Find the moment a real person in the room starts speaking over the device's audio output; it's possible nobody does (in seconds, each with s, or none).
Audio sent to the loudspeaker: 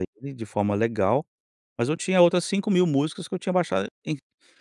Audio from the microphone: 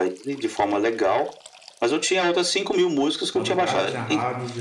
3.3 s